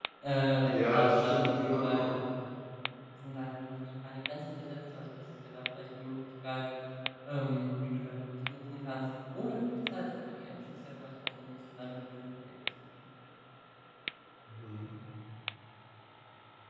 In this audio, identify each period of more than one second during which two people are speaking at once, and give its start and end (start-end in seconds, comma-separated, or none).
0.6-2.0